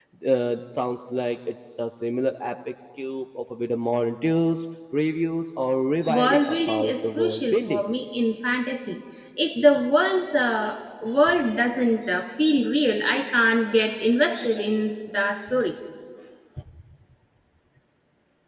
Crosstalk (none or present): present